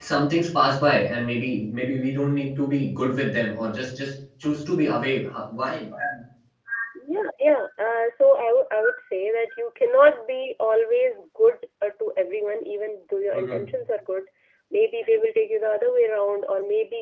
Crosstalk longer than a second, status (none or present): none